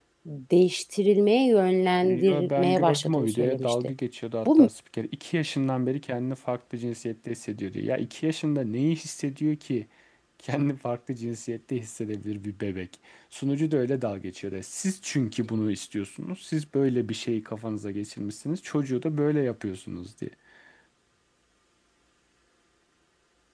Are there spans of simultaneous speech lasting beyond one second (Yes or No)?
Yes